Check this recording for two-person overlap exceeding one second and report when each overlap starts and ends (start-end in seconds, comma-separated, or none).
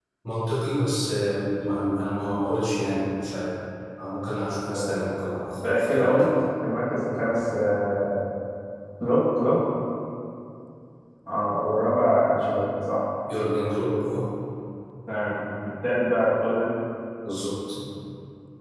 4.7-6.3